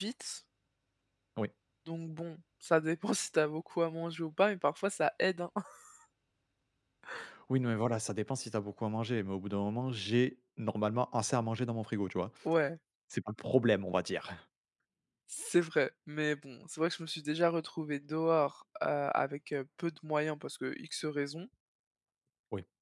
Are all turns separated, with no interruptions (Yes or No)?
Yes